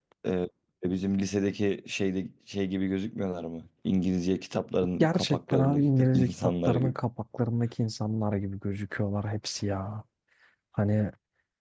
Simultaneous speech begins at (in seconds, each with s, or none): 5.0 s